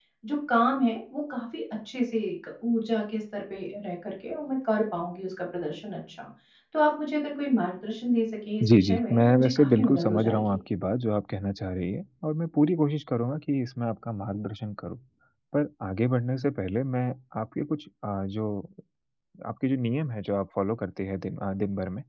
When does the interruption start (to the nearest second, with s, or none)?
9 s